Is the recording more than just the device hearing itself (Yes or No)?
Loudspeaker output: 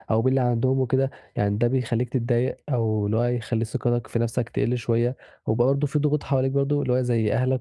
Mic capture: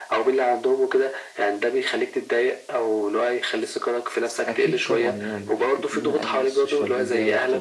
Yes